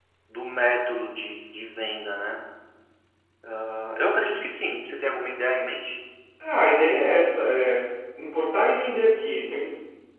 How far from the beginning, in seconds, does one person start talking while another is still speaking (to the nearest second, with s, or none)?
none